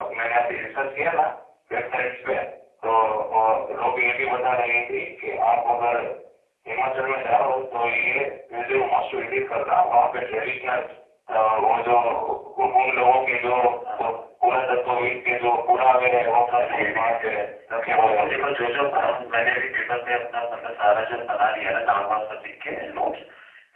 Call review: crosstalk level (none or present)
present